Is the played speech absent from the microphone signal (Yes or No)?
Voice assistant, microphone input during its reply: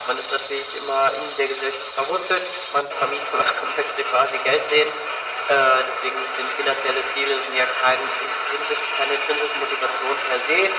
No